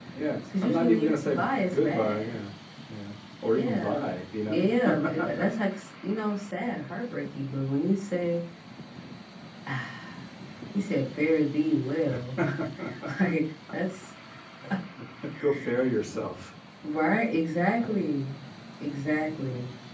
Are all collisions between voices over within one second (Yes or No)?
No